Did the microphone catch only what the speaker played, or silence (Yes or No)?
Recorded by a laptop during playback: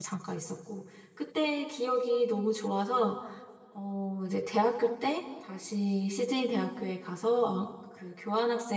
No